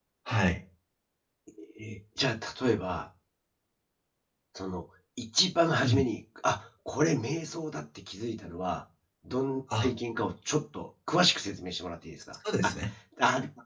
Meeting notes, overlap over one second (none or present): none